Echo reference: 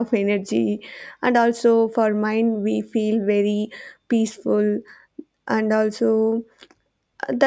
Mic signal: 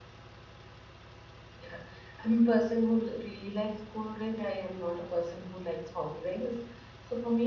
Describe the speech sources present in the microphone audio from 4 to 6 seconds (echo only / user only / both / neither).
user only